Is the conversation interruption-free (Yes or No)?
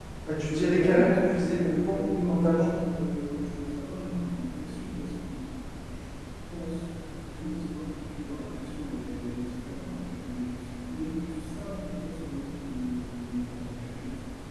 No